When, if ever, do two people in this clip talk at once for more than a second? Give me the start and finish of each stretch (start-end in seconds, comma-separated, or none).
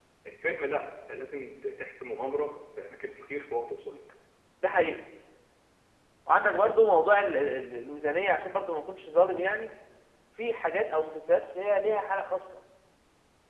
none